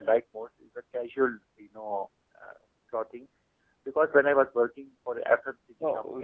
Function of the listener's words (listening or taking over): taking over